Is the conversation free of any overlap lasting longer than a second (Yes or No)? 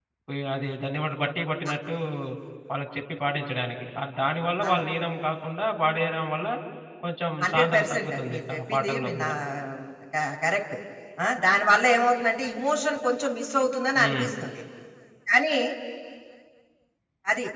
No